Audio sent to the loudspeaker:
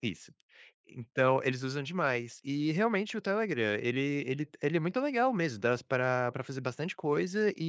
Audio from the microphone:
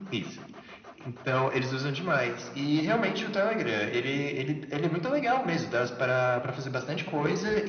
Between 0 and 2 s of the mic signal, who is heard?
echo only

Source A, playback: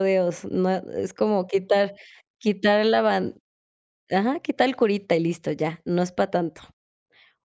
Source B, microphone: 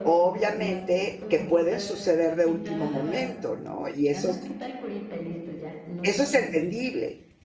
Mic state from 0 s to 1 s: both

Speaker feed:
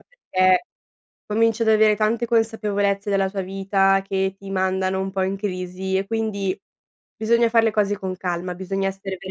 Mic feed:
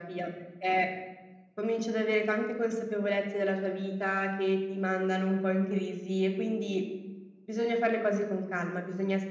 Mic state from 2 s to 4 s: echo only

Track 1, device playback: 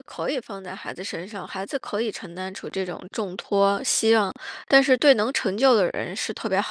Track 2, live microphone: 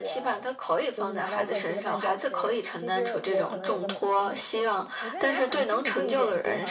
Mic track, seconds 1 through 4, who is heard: both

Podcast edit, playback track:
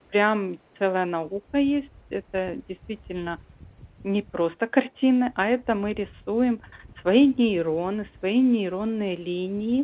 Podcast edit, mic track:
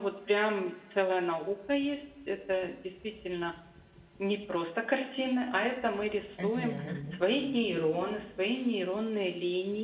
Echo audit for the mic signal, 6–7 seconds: both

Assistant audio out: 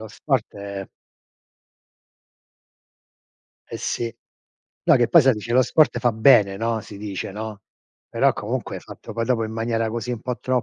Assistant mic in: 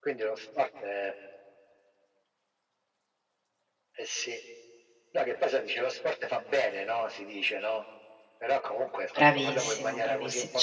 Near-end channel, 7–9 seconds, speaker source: echo only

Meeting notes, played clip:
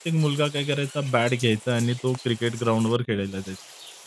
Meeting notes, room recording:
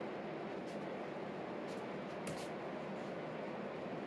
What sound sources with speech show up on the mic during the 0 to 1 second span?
neither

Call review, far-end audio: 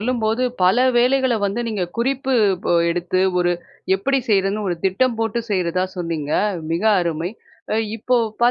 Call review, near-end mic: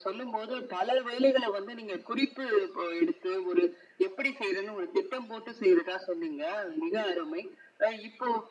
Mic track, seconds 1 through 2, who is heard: echo only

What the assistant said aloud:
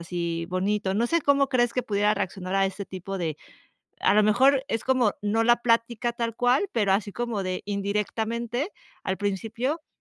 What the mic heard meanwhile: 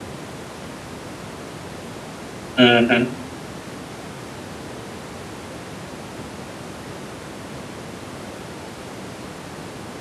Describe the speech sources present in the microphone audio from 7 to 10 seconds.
neither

